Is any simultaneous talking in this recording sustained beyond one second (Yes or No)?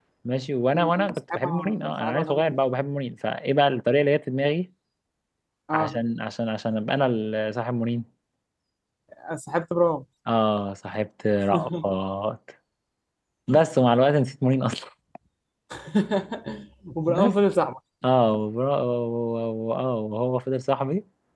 Yes